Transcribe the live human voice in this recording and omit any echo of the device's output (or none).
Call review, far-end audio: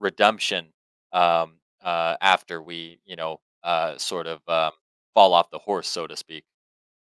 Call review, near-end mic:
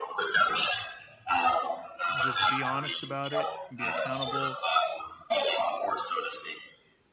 Just be honest about it, be accountable,